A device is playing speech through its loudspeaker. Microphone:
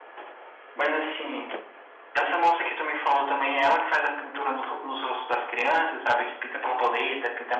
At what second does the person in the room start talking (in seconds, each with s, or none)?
none